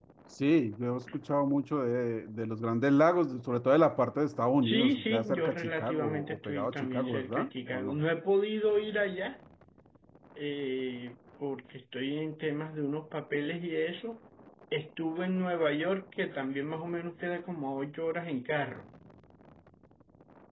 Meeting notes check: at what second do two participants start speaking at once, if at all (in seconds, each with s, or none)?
4.6 s